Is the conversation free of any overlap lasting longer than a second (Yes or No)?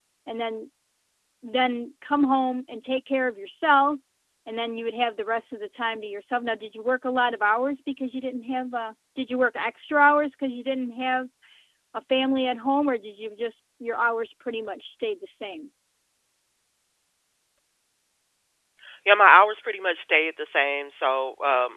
Yes